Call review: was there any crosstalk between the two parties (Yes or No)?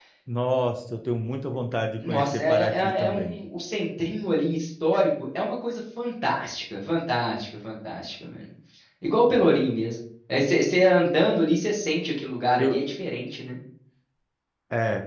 Yes